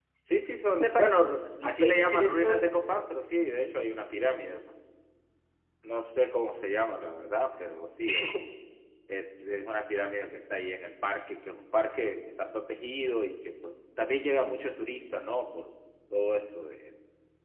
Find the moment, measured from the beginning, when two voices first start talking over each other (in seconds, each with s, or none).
0.8 s